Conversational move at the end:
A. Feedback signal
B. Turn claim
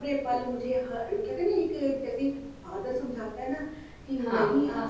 A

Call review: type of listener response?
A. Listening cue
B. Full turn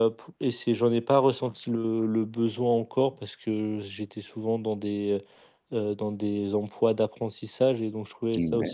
A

